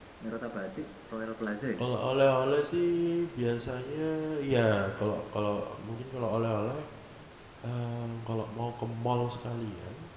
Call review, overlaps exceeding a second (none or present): none